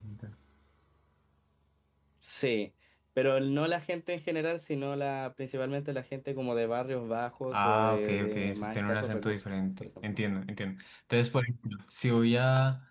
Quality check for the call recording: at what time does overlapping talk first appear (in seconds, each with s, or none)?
7.5 s